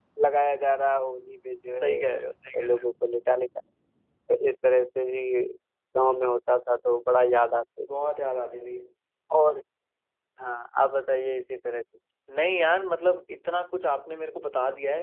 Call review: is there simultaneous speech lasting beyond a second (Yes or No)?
No